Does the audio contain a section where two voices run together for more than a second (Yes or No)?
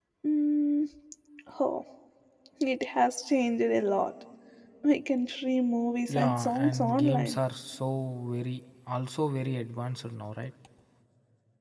Yes